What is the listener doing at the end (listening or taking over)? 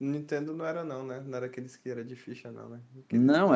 taking over